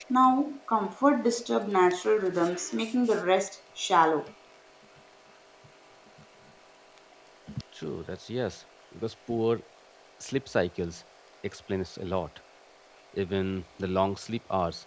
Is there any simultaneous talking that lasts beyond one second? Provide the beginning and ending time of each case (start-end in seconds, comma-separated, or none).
none